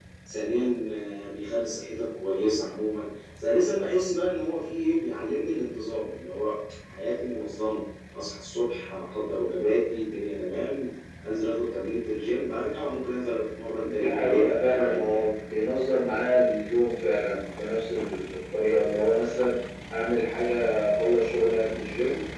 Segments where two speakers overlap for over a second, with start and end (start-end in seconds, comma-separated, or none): 13.8-15.2